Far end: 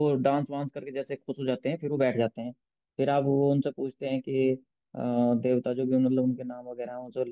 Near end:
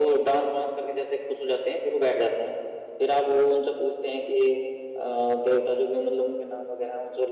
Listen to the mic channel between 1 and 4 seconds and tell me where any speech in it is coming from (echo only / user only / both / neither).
echo only